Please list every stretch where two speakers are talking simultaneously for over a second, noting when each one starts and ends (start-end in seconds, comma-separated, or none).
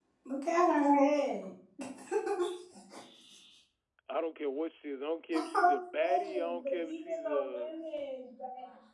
5.6-7.7